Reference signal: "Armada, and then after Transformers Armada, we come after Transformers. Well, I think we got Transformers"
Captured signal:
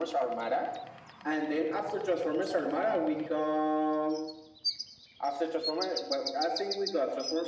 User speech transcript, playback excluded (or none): none